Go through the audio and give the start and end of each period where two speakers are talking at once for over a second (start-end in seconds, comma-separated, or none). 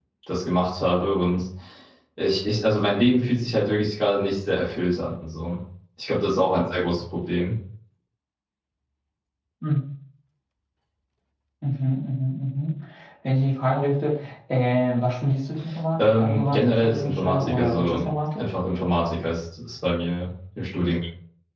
16.0-18.0